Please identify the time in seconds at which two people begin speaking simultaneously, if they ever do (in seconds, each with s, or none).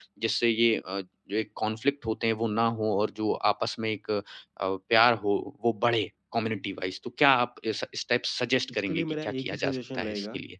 8.7 s